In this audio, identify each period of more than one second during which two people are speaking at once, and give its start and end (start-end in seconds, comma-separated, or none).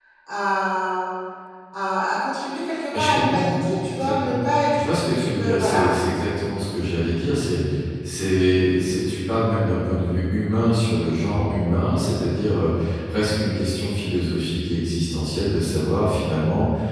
2.9-4.8